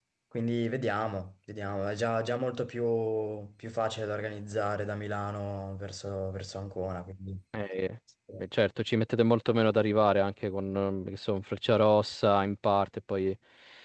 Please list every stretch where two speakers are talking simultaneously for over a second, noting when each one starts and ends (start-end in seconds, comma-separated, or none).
none